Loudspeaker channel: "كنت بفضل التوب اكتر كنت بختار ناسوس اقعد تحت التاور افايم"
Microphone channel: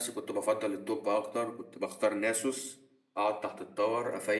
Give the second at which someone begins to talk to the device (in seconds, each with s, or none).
none